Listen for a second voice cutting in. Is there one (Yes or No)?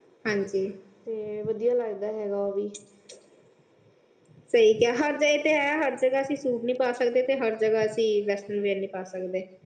No